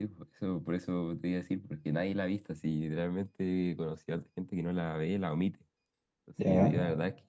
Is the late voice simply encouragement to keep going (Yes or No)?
Yes